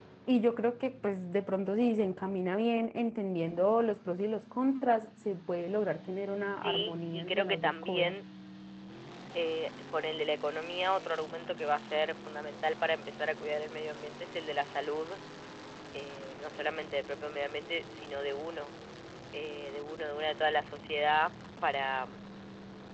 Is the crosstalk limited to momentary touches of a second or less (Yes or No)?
No